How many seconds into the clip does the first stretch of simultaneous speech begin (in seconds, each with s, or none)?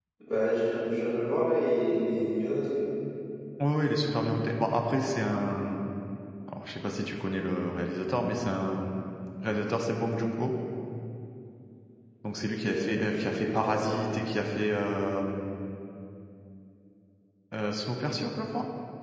12.5 s